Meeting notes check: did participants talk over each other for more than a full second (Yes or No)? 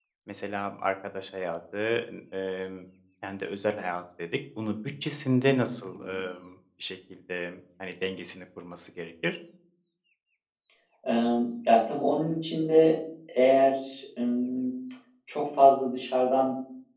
No